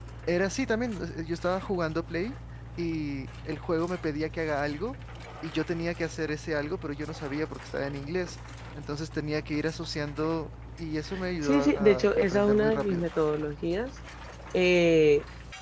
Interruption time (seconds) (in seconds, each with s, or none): 11.4 s